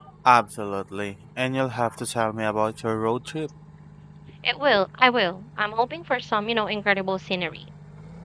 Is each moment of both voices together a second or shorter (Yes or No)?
Yes